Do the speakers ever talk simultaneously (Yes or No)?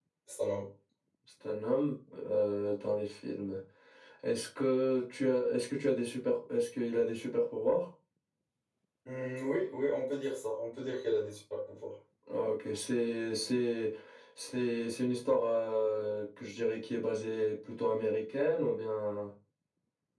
No